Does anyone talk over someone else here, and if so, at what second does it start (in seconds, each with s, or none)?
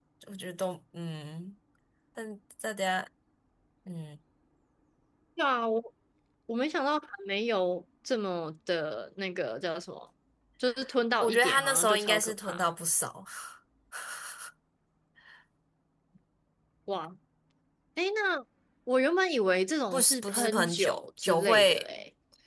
11.2 s